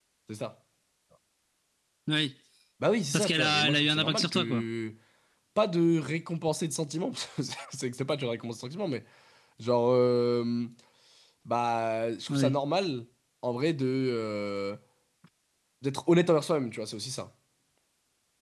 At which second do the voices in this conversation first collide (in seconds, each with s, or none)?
3.1 s